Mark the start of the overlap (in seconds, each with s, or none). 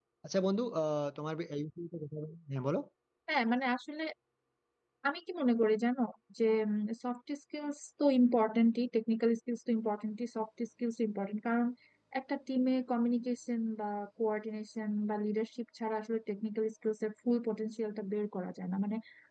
none